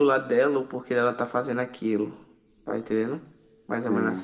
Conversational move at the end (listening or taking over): taking over